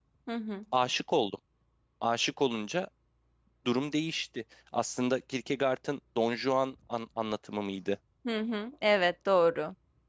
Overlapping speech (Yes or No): No